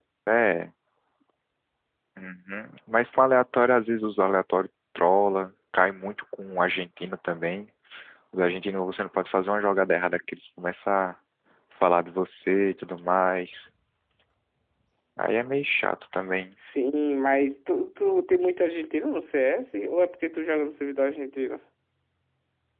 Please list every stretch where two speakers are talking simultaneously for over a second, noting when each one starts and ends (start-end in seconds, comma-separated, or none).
none